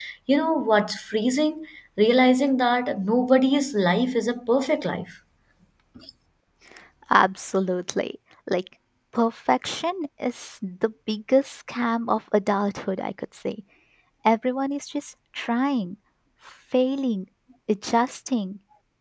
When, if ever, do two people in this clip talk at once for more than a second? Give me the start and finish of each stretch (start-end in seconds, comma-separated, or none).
none